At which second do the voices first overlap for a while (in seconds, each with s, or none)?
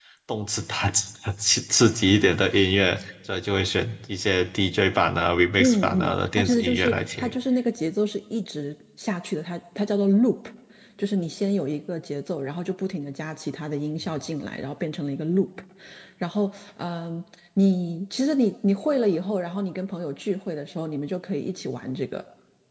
5.6 s